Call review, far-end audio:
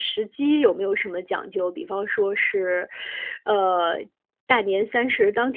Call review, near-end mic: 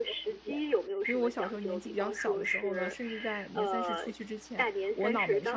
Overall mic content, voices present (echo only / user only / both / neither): both